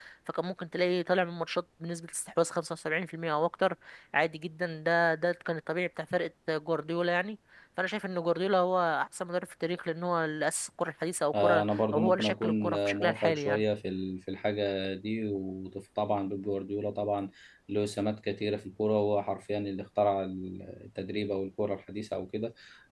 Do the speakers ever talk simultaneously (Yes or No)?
Yes